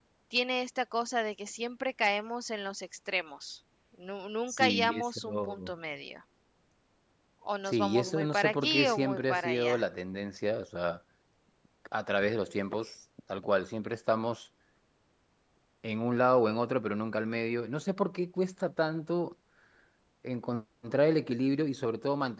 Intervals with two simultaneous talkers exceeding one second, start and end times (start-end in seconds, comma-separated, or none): 4.5-5.7, 7.7-9.8